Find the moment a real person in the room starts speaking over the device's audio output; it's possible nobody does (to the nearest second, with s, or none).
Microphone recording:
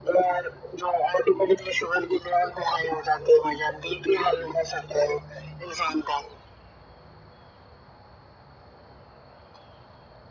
none